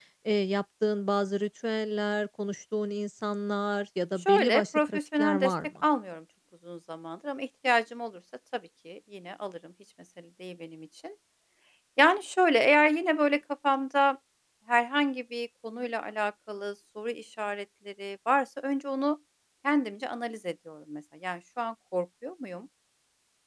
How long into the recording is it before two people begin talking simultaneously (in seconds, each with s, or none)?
4.2 s